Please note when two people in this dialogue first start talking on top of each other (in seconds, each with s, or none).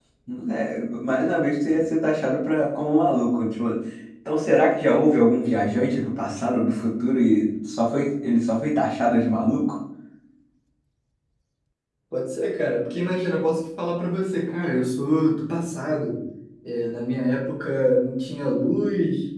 none